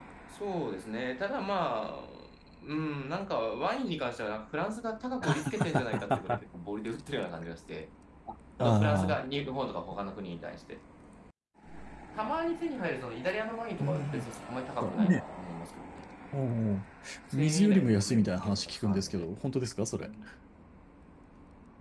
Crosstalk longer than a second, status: present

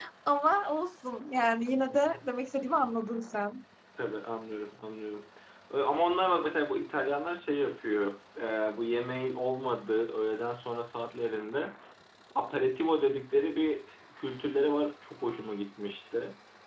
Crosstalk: none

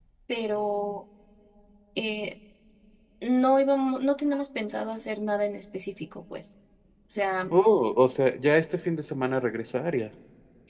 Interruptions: none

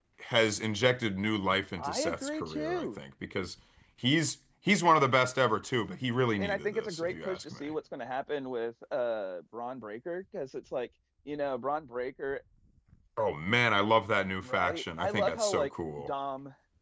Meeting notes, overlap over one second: present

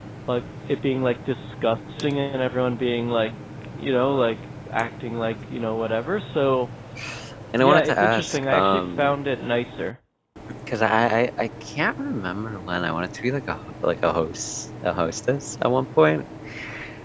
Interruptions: present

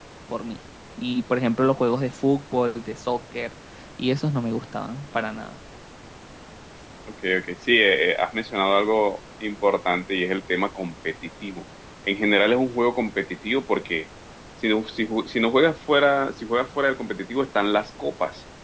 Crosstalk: none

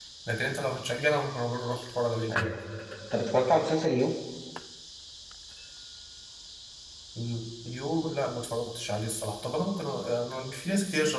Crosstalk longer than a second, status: none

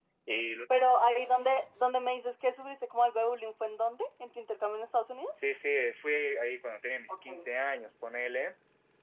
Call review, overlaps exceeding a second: none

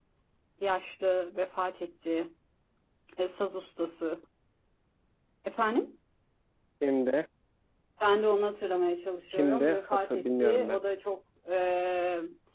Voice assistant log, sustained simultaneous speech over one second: present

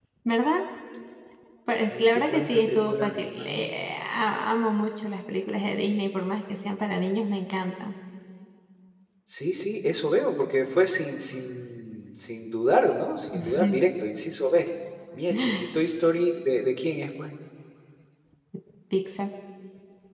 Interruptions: present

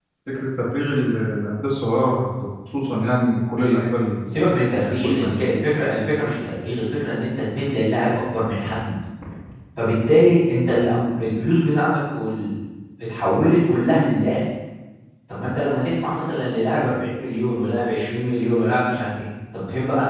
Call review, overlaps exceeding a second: none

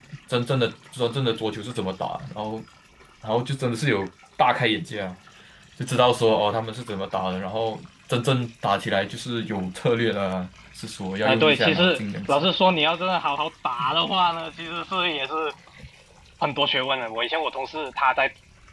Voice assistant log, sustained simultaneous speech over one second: present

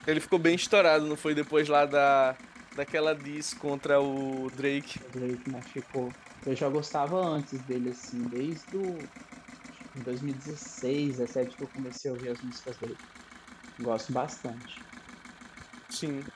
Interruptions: none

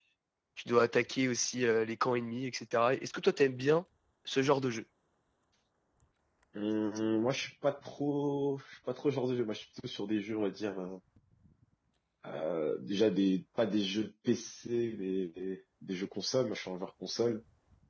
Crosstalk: none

